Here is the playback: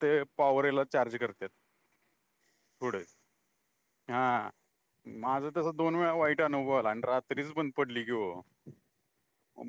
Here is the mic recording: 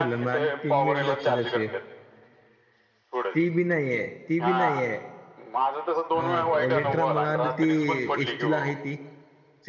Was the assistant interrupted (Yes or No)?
Yes